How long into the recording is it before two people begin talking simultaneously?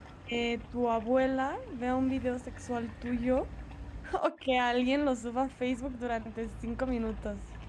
none

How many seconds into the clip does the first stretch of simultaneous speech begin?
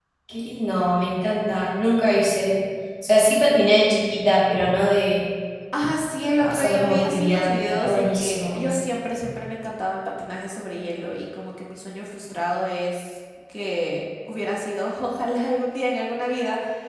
6.4 s

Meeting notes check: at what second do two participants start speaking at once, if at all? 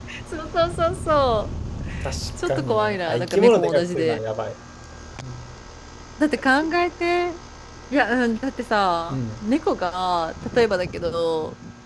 2.5 s

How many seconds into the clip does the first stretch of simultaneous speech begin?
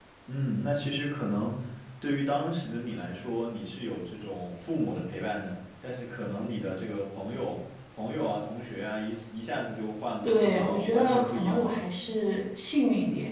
10.2 s

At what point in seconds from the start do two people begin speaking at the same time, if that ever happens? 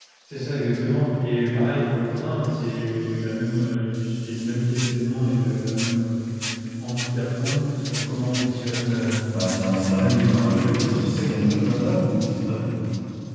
9.9 s

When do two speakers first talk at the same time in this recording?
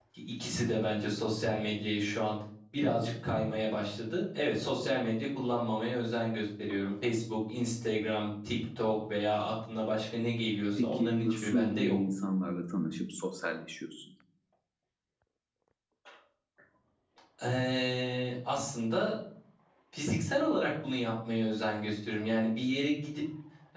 10.8 s

